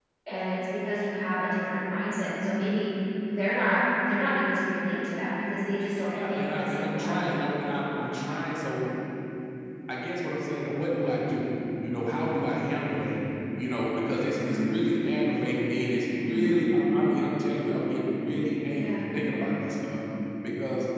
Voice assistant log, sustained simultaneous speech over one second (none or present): present